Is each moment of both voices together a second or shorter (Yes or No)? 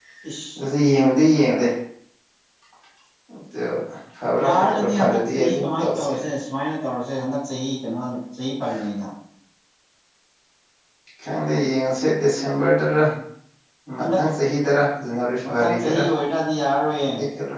No